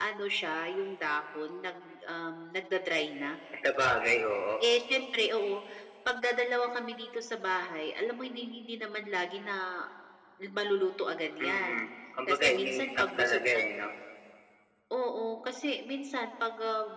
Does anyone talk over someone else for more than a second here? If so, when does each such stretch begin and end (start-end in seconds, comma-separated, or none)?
12.3-13.6